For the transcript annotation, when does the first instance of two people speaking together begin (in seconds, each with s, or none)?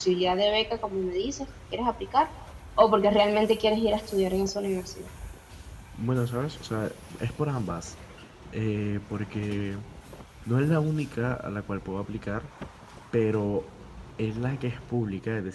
none